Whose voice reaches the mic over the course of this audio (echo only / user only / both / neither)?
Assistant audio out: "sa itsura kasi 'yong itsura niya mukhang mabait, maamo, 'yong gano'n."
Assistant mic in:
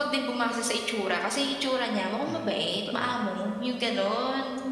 both